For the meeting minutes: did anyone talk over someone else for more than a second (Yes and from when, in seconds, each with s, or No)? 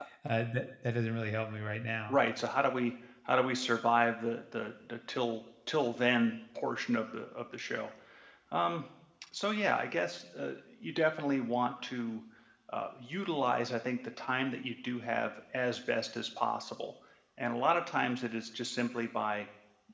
No